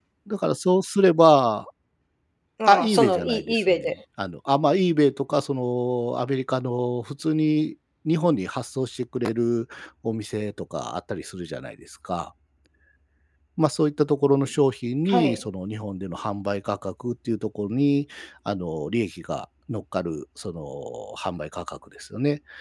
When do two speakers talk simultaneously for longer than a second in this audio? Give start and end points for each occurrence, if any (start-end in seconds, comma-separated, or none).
2.7-3.9